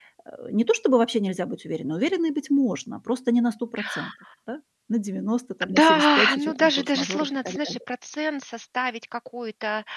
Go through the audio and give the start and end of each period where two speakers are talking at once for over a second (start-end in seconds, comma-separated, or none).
5.6-7.8